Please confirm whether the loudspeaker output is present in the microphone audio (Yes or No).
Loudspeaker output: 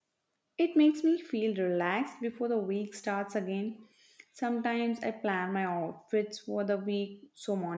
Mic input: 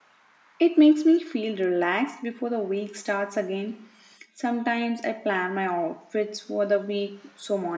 Yes